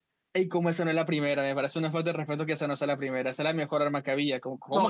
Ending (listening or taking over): taking over